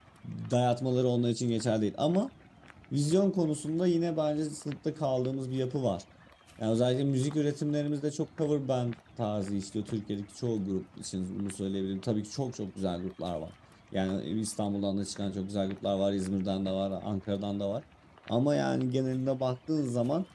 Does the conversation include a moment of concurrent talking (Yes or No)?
No